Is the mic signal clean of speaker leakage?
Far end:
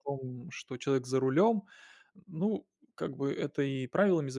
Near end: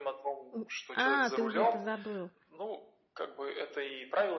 No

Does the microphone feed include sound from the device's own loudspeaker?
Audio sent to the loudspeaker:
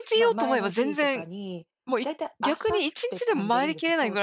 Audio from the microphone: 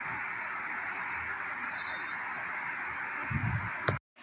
No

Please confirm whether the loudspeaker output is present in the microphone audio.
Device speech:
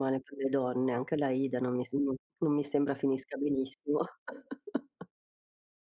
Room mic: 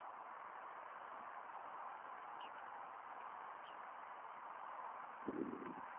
No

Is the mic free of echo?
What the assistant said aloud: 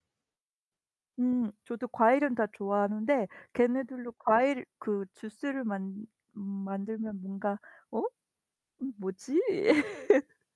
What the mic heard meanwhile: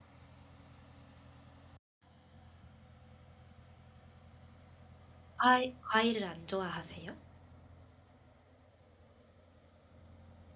Yes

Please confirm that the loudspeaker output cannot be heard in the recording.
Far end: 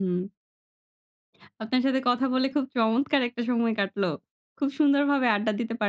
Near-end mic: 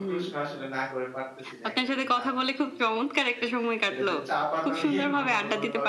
No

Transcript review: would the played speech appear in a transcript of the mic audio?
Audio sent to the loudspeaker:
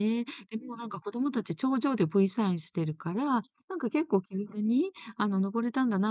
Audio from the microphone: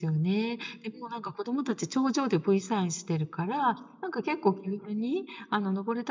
Yes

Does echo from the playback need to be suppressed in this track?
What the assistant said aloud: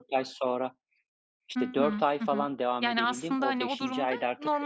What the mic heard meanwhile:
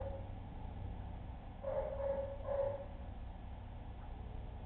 No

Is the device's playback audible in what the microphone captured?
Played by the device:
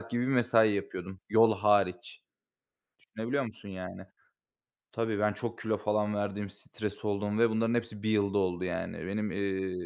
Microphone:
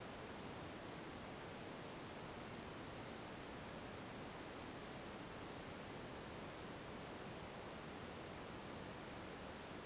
No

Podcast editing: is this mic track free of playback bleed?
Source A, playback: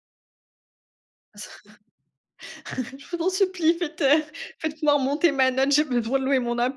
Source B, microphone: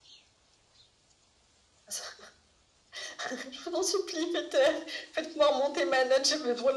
No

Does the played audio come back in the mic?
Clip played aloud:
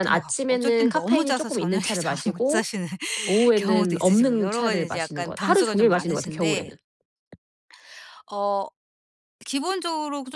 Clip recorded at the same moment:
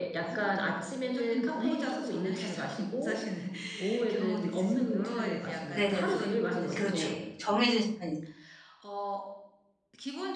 Yes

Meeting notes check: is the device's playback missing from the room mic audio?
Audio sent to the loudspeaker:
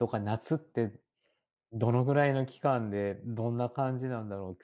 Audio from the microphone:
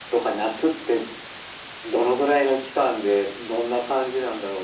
No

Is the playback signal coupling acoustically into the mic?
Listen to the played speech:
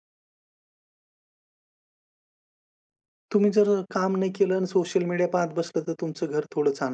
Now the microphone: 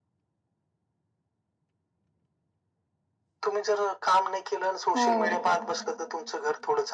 Yes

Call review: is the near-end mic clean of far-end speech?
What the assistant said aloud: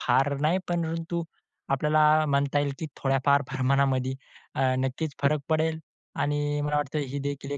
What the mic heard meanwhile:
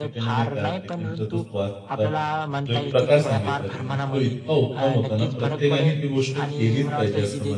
No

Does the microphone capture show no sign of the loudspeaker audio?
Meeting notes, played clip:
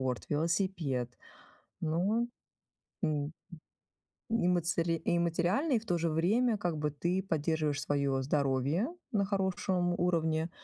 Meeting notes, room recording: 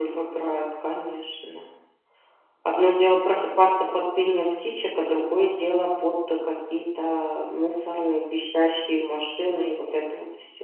Yes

